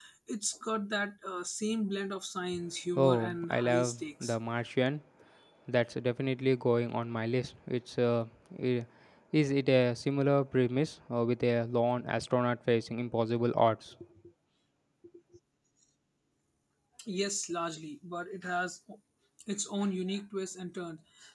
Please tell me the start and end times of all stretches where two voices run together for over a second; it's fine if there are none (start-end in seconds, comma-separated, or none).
3.0-4.4